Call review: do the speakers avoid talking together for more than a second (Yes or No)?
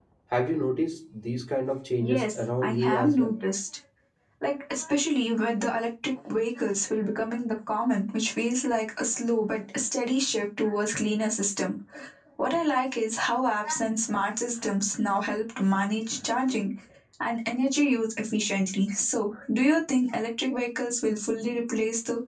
No